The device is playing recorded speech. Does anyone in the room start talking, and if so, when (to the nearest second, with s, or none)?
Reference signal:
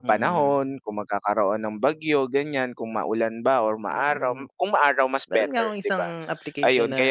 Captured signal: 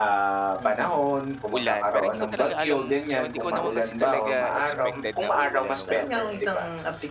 1 s